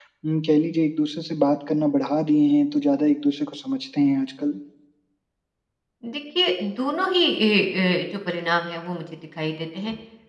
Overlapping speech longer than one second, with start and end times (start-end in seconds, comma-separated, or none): none